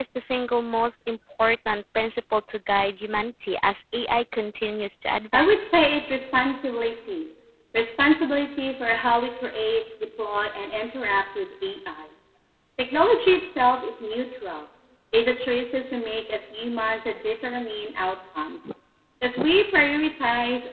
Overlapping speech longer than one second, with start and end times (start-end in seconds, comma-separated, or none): none